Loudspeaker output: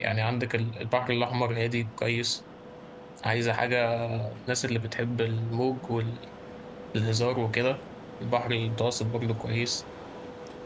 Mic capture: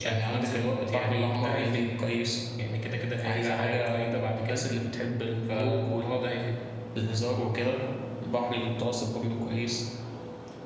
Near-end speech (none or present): present